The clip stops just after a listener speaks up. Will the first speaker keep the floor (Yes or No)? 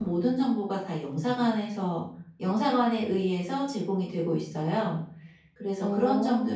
Yes